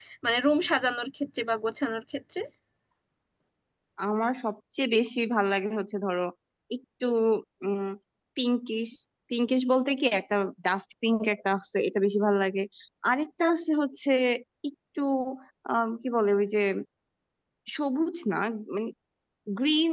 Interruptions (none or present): none